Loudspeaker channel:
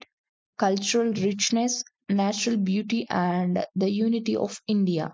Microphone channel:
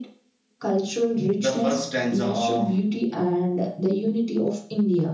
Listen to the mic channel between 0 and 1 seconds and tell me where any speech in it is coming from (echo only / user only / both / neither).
echo only